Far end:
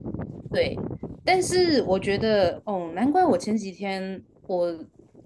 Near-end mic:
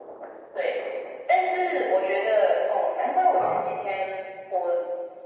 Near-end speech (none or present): present